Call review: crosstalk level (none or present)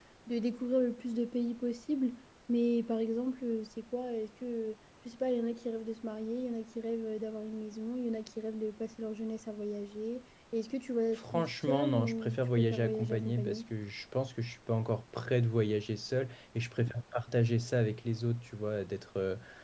present